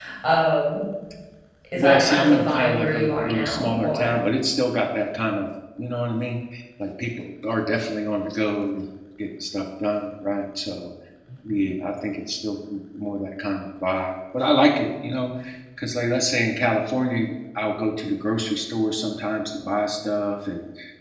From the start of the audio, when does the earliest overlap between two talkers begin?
2 s

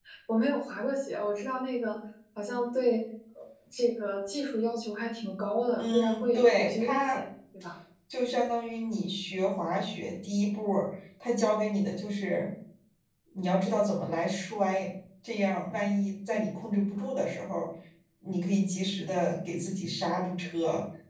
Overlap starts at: 6 s

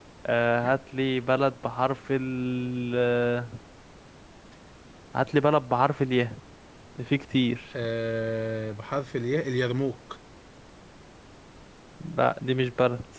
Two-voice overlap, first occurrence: none

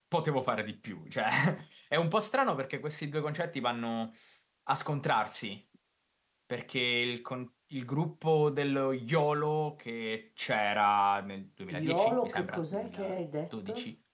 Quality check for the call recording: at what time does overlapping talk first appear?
12 s

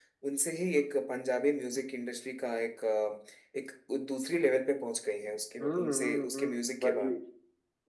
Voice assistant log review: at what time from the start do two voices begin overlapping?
6 s

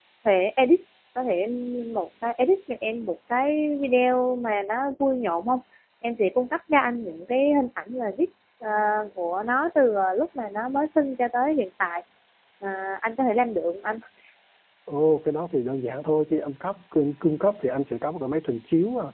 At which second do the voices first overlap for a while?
none

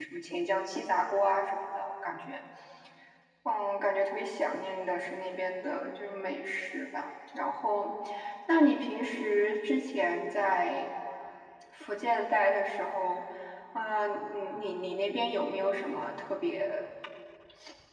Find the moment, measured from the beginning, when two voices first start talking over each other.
none

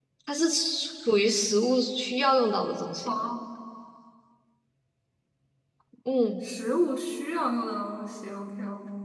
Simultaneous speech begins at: none

